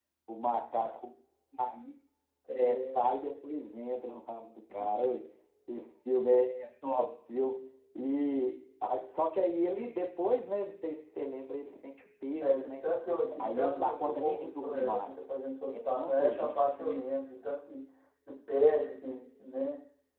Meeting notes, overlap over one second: present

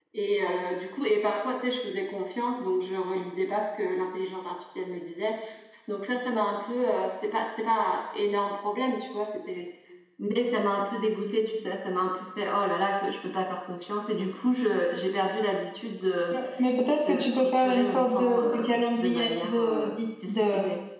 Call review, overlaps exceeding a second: present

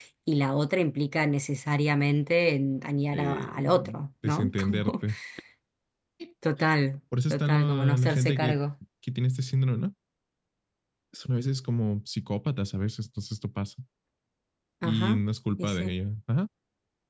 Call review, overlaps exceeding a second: present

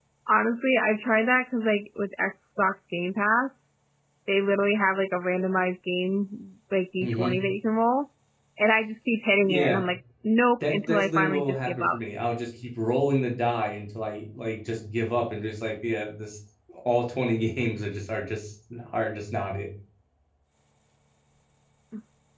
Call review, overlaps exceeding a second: present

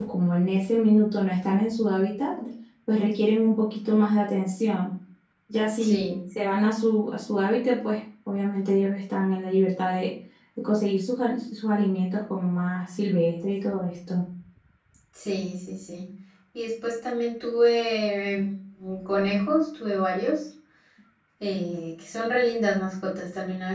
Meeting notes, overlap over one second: none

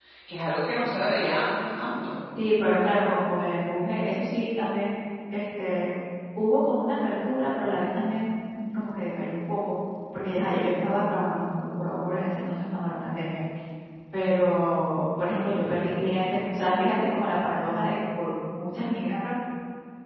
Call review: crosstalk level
none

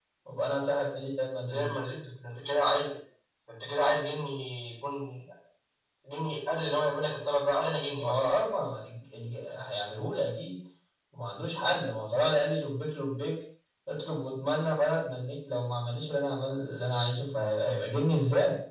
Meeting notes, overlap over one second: none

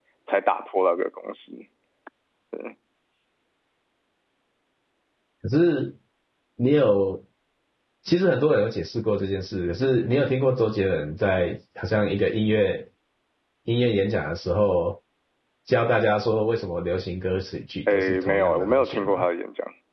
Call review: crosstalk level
present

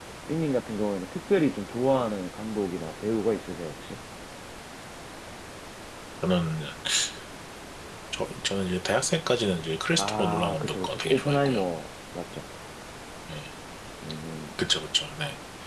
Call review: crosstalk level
present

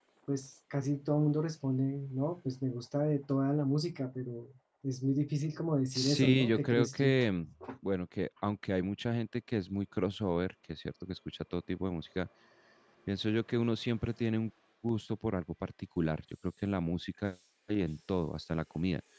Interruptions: present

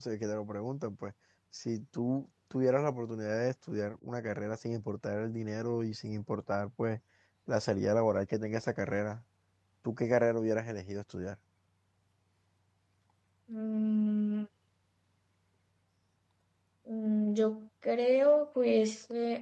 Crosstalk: none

